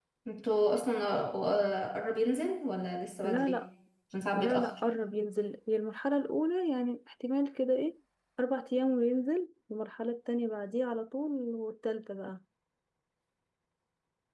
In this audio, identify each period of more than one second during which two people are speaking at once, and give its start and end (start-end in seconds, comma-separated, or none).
none